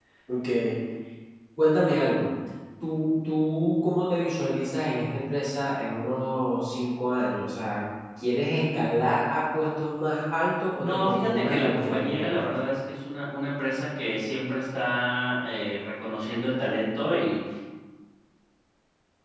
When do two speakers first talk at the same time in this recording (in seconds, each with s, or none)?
10.8 s